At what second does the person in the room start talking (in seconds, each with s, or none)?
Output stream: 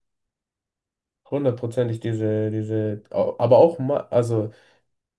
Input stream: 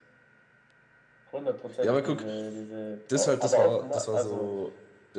1.8 s